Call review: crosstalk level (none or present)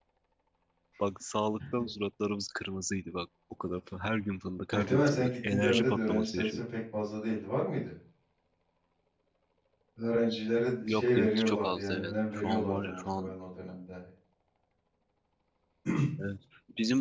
present